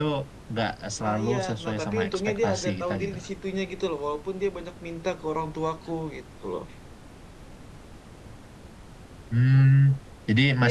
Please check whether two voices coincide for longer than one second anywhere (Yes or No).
Yes